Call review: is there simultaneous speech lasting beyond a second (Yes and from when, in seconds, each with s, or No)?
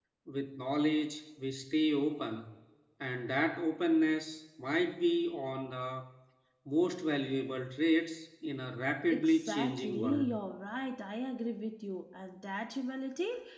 Yes, from 9.1 s